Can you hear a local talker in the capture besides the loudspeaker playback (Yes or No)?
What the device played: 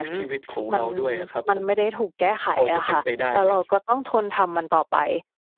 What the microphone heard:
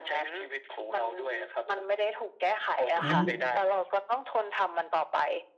Yes